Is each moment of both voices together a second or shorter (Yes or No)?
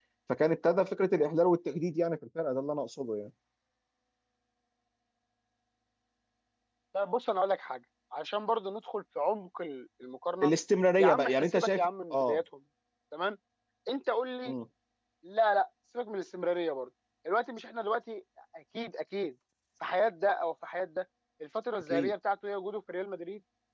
No